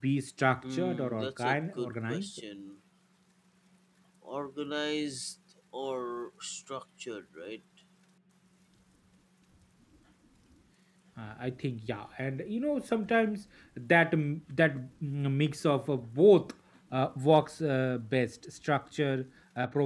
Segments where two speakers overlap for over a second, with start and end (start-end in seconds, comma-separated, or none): 0.7-2.3